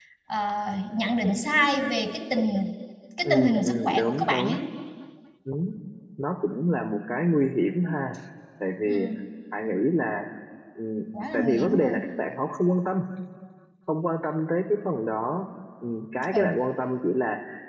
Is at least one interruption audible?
Yes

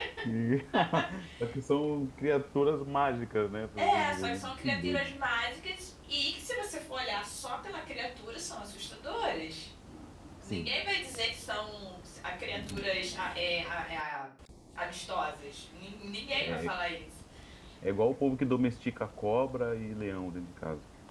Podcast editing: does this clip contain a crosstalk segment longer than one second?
Yes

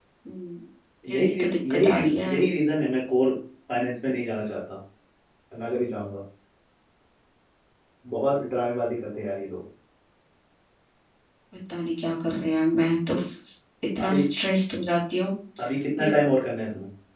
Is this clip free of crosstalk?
No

